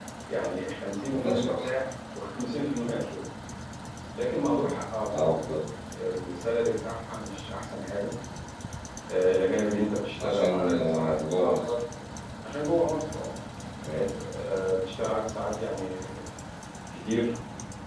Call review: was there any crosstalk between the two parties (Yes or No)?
Yes